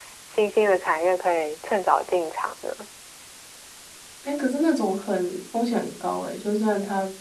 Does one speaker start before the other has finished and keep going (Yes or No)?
No